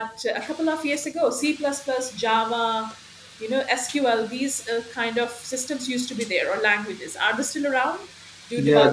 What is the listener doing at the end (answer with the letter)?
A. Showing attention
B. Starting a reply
B